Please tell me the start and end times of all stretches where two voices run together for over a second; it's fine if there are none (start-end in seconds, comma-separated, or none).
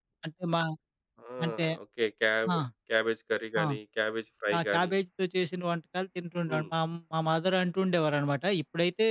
none